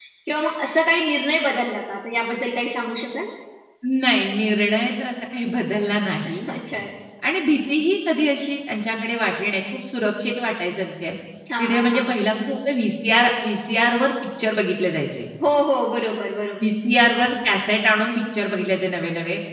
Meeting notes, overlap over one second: none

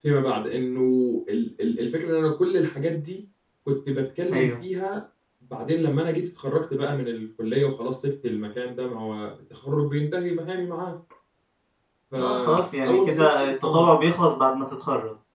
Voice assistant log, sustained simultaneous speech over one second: present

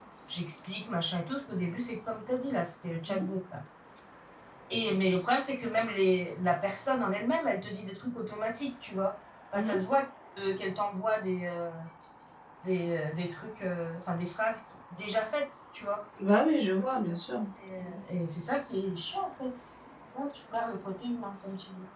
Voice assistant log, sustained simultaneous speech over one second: none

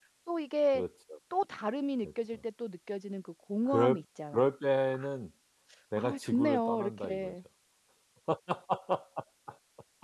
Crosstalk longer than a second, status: present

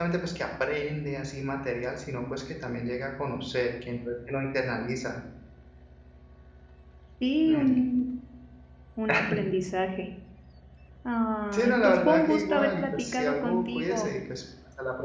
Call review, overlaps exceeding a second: present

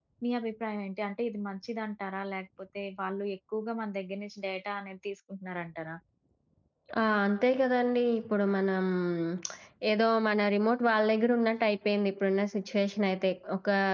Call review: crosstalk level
none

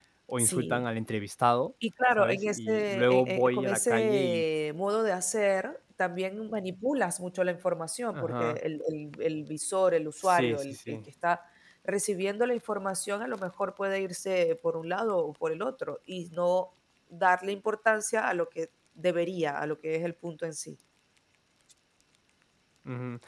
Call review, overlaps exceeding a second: present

